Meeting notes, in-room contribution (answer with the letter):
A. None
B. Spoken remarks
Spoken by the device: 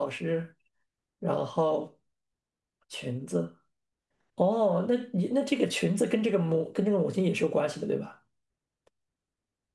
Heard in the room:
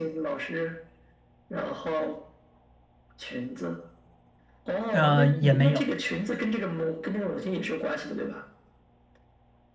B